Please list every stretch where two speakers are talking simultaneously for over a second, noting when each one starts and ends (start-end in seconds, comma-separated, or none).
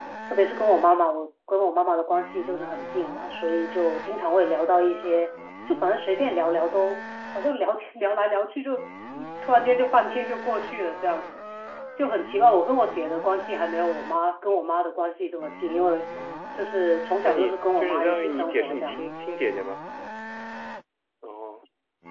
17.2-19.1